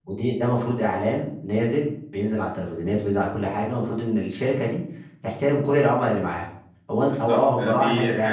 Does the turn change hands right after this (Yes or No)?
Yes